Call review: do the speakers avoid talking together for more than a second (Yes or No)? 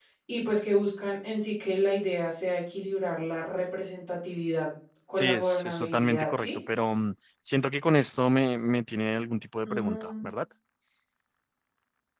No